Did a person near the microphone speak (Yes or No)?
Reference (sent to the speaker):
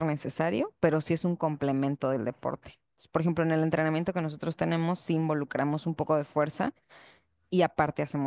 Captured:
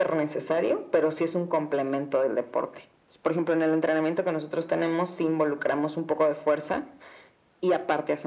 No